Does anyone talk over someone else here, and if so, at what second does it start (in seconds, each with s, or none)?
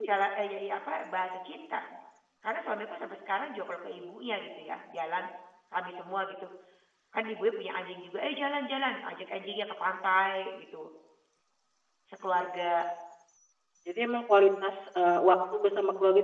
none